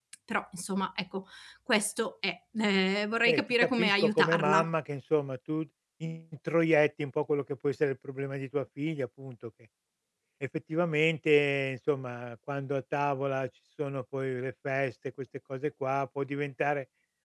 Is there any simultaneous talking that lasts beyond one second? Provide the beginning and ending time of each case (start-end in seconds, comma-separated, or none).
3.2-4.7